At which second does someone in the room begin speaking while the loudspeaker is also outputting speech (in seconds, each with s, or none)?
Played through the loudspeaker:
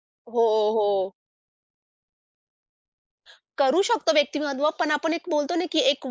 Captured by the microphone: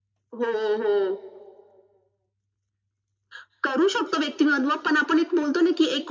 none